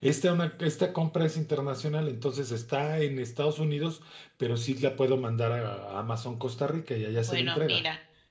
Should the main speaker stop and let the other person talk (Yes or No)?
Yes